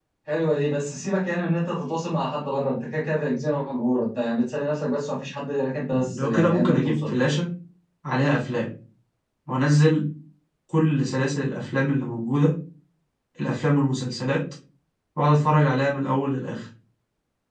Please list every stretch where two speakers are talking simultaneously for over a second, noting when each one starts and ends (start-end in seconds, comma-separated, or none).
5.9-7.2